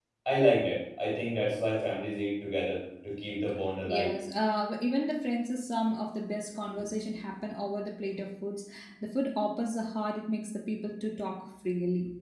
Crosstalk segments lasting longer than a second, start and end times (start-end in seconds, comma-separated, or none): none